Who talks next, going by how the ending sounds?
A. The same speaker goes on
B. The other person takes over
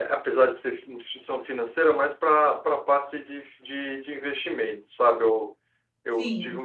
A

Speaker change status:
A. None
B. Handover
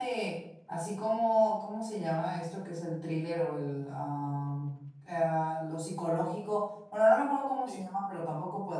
A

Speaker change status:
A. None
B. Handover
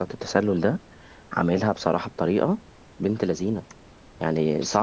A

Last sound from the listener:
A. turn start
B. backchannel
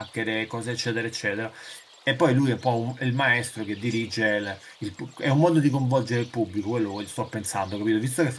B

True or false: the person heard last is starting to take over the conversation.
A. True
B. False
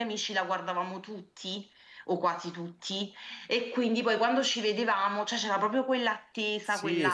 A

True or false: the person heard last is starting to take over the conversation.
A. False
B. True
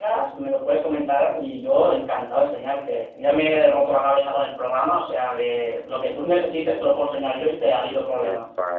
B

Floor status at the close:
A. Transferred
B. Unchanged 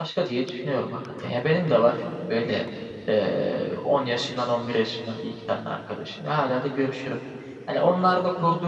B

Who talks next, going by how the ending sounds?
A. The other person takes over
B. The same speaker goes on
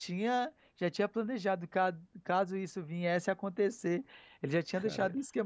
B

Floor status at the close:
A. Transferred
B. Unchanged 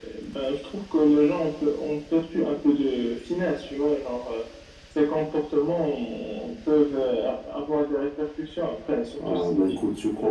A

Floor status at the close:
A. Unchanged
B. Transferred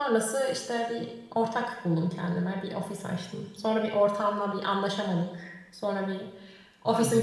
A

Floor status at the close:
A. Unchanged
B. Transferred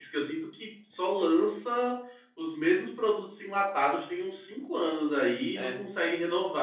A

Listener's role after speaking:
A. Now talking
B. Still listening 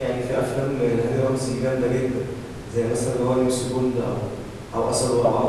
B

